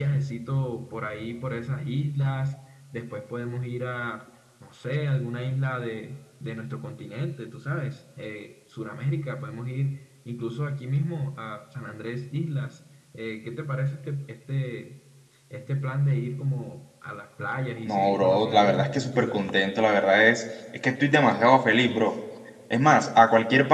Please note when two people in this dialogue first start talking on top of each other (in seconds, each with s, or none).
17.9 s